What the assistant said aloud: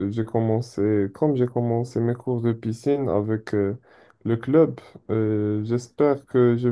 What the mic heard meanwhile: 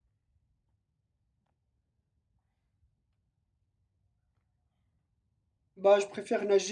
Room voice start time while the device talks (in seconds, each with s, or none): 5.8 s